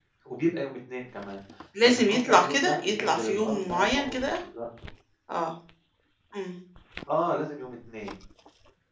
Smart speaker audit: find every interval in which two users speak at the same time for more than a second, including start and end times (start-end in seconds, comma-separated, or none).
1.8-4.4